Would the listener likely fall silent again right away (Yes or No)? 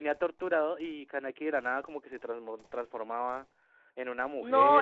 No